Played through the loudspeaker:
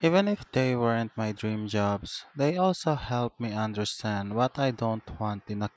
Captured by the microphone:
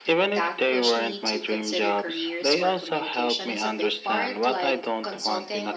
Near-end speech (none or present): present